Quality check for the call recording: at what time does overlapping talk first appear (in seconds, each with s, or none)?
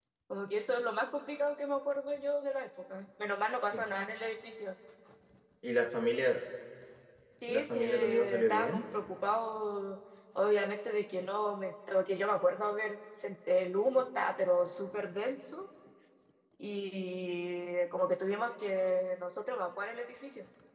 7.5 s